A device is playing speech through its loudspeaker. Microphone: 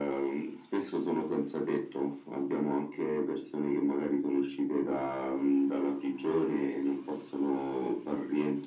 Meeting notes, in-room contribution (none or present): none